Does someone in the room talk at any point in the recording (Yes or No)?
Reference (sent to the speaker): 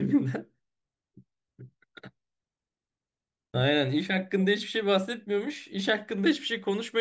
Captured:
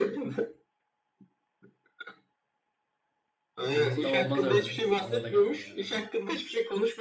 Yes